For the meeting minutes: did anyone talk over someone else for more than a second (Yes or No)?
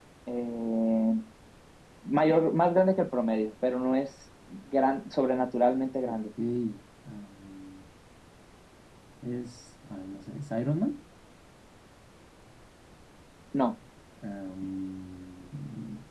No